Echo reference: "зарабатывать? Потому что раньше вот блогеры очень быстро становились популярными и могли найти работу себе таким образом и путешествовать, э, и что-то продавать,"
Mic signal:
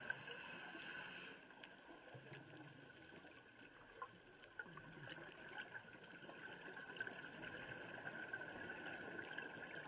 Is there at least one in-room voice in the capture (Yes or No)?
No